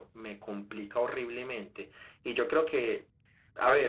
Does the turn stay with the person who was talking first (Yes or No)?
No